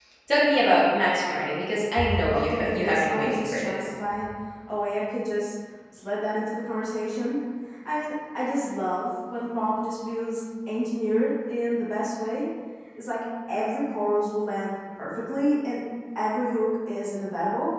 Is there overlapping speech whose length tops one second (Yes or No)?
Yes